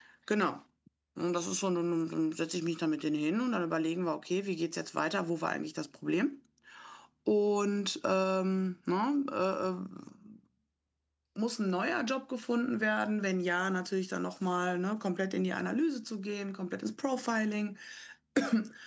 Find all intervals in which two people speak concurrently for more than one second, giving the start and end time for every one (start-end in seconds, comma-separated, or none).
none